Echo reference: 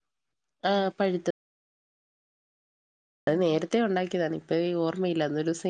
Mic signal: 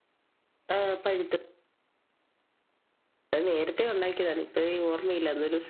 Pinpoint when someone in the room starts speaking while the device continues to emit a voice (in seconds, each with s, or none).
none